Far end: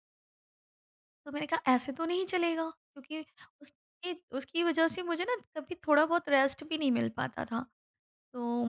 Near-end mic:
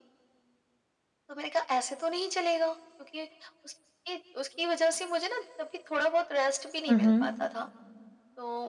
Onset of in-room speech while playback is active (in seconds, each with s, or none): 6.9 s